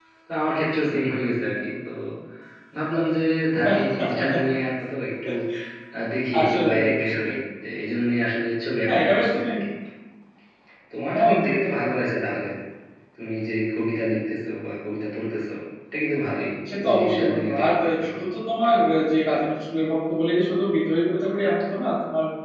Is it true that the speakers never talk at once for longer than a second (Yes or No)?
No